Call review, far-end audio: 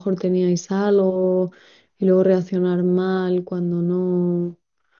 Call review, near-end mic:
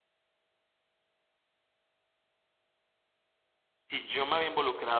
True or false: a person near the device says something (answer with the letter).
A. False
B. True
B